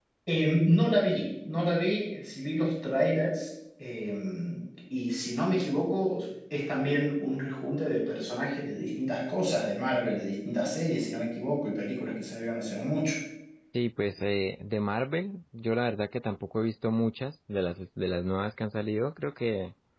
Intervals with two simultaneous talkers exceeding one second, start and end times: none

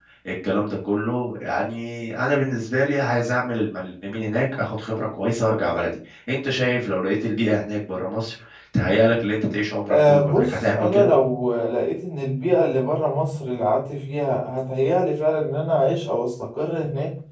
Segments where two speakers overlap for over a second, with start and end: 9.9-11.1

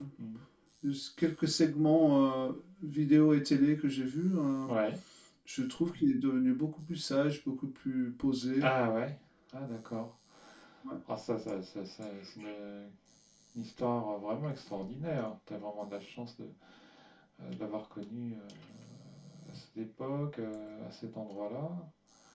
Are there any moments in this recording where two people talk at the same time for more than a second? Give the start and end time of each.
none

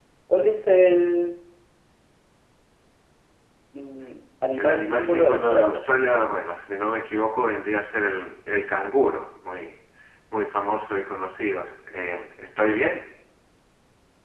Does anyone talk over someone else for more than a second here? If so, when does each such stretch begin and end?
4.5-5.8

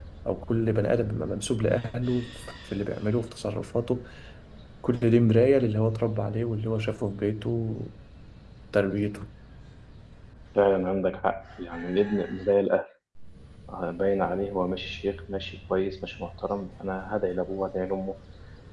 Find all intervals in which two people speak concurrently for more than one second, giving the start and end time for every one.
none

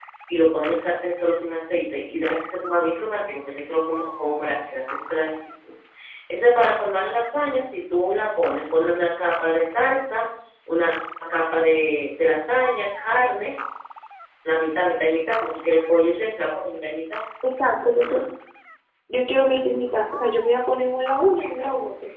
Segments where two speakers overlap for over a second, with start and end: none

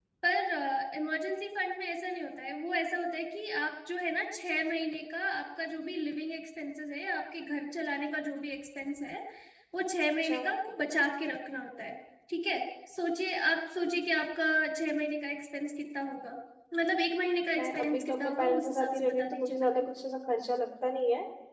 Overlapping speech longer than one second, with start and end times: 17.5-19.8

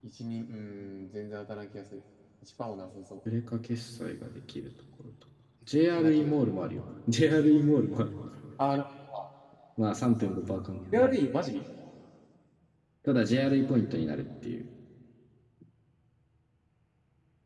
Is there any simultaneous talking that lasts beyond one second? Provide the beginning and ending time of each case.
none

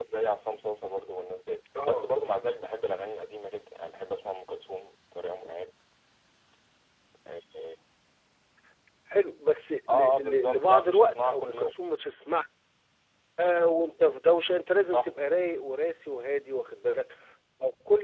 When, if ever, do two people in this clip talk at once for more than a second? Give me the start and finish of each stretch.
9.9-11.7

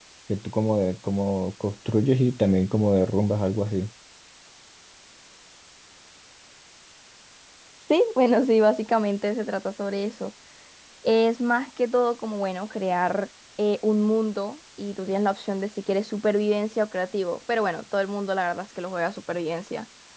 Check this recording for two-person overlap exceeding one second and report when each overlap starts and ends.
none

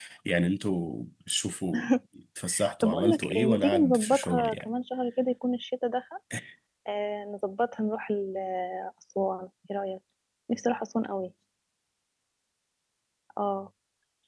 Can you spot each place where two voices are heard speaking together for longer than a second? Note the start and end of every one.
2.8-4.6

